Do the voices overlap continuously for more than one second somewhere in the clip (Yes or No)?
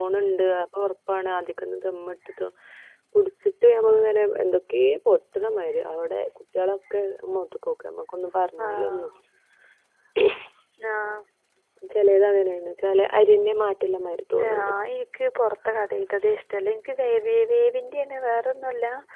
No